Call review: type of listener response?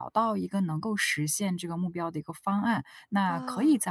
listening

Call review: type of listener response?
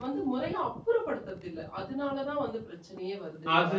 taking over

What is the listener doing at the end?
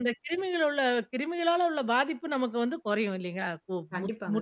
taking over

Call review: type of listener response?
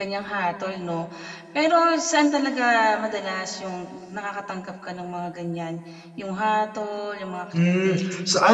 taking over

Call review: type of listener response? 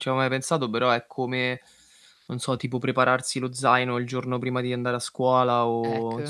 listening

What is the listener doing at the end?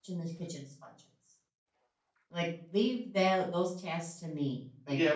taking over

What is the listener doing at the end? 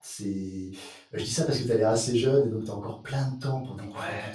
taking over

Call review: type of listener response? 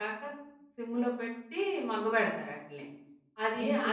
listening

